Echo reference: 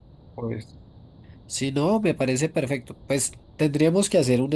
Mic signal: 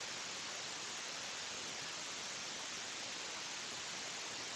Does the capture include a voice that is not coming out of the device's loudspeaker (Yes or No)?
No